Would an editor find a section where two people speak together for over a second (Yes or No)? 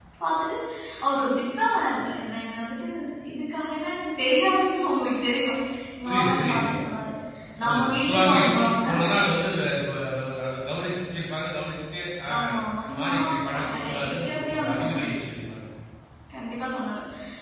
Yes